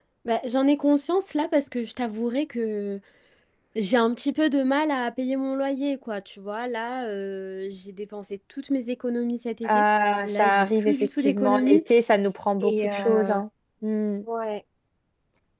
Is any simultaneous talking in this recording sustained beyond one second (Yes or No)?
Yes